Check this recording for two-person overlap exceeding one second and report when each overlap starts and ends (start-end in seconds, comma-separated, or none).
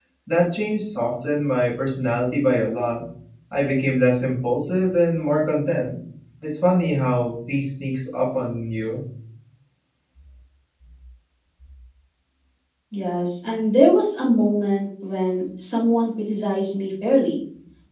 none